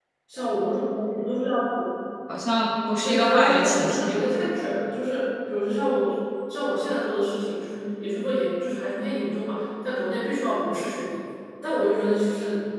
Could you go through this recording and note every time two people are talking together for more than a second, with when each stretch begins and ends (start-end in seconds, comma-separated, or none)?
3.0-4.2